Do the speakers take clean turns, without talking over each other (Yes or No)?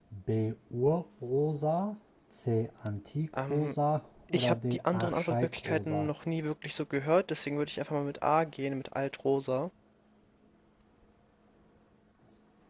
No